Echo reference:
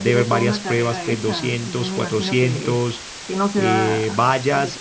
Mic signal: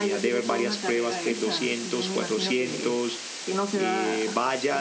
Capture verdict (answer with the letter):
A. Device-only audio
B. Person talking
A